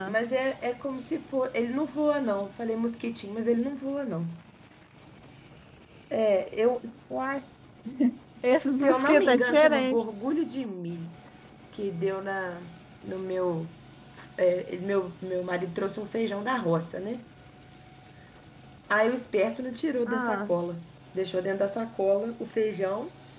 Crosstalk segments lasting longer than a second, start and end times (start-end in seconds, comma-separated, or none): 8.8-10.0